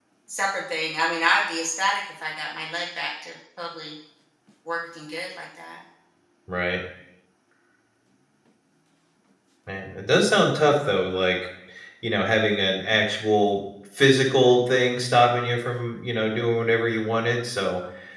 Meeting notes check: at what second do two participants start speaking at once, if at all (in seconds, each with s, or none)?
none